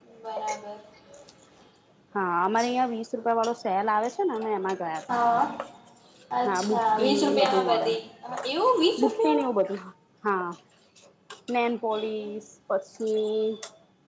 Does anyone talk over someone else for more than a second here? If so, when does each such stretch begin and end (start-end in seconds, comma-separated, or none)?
6.5-7.9